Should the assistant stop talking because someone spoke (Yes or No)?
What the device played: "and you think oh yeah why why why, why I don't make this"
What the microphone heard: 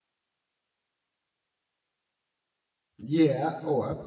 Yes